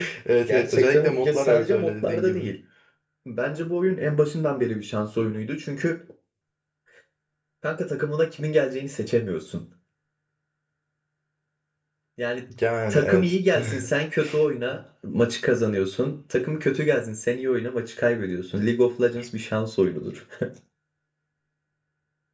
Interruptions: present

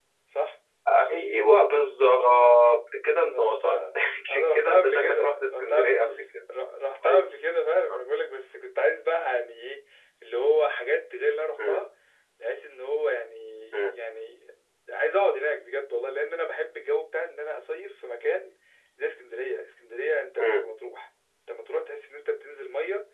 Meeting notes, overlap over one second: present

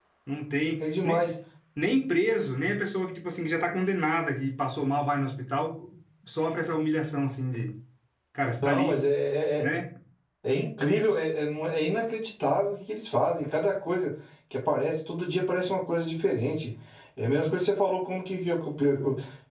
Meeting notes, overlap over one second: none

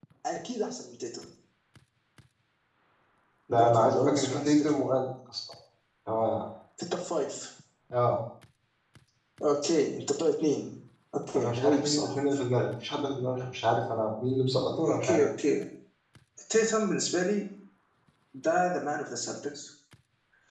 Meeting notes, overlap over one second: present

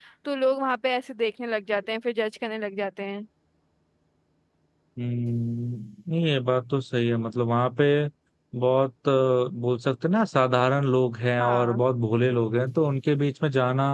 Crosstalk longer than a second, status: none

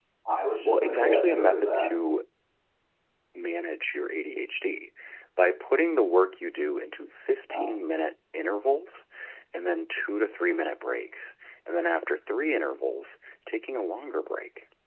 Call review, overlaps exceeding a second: present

